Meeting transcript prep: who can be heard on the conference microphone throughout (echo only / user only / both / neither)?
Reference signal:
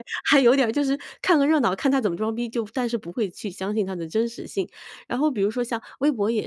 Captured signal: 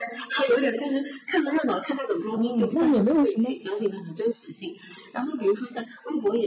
both